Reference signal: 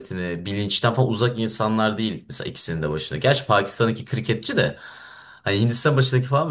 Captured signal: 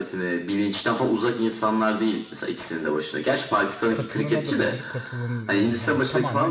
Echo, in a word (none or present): present